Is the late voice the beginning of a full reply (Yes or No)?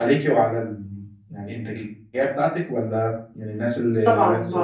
Yes